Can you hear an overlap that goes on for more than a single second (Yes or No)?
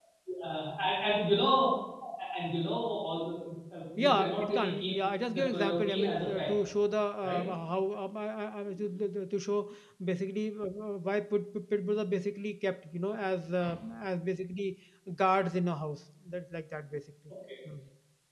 Yes